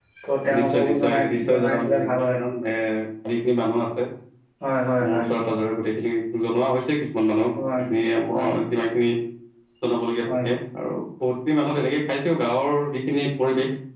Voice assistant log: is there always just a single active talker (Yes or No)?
No